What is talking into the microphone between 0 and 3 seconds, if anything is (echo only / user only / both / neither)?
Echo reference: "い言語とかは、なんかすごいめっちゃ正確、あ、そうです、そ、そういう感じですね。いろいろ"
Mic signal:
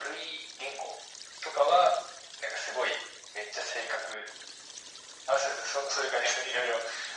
echo only